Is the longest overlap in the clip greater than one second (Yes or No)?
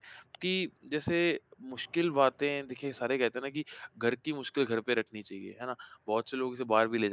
No